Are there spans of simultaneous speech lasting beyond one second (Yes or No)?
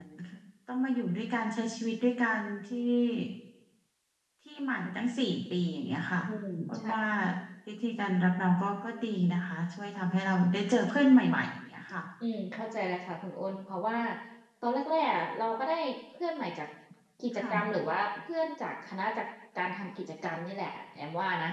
No